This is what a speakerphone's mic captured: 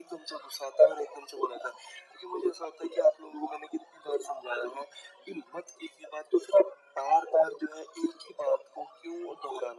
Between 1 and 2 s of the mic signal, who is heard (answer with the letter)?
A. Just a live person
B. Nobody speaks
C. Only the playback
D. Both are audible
C